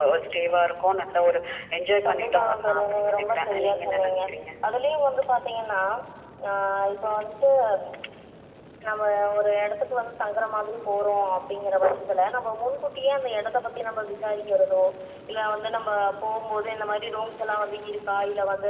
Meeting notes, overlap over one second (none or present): present